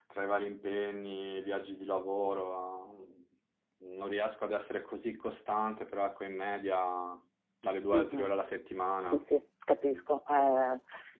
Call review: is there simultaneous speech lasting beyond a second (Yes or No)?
No